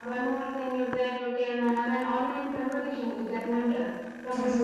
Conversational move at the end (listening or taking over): listening